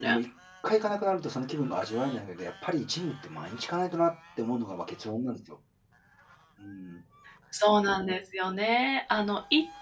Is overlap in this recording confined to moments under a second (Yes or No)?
Yes